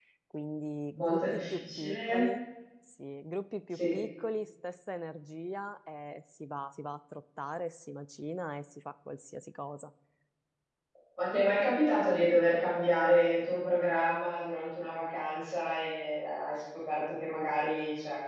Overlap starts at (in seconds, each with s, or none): 0.9 s